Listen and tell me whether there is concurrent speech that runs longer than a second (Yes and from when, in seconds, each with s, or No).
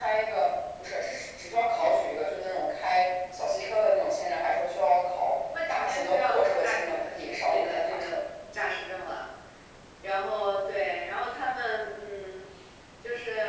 Yes, from 5.5 s